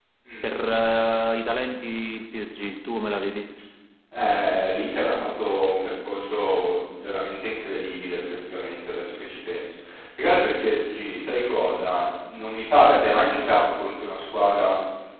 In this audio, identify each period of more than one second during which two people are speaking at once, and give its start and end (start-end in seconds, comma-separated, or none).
none